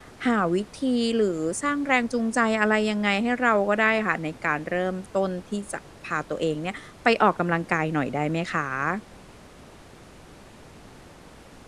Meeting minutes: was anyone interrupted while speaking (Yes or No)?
No